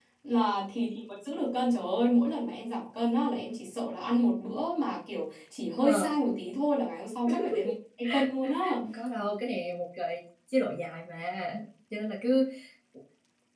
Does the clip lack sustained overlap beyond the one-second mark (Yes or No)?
Yes